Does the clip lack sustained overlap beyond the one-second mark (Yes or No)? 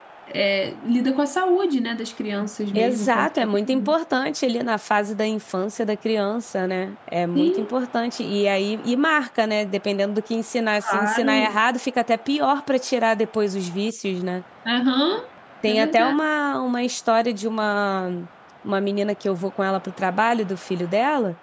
No